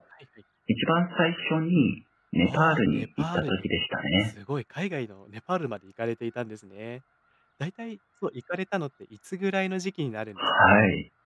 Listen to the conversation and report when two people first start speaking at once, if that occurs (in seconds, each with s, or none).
2.4 s